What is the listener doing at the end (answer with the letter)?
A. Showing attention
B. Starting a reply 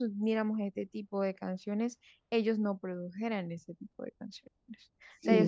A